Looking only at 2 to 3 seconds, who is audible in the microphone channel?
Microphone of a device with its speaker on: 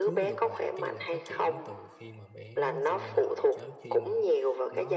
both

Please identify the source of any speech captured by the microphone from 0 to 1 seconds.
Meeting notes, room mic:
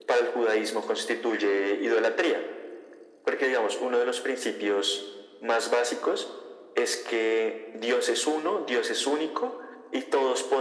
echo only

